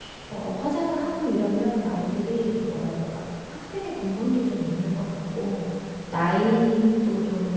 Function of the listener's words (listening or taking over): listening